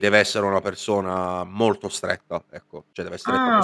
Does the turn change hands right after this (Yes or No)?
Yes